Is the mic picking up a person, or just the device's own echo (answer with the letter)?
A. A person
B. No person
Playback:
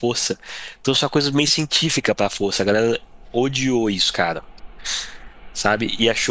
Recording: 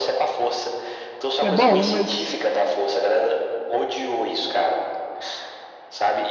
A